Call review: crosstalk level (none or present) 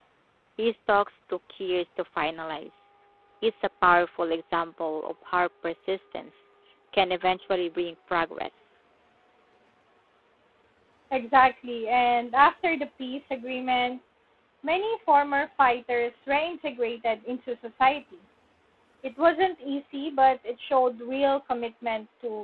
none